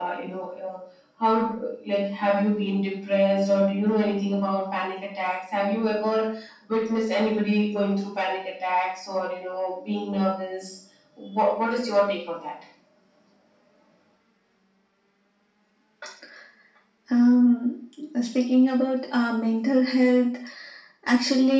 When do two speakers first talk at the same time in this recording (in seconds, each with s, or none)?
none